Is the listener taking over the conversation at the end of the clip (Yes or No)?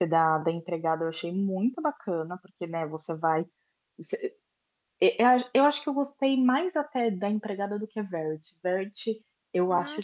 No